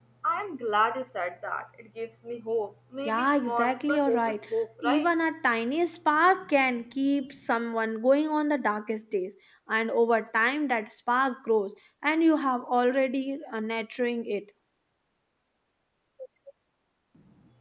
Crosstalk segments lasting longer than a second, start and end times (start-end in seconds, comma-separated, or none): 3.0-4.4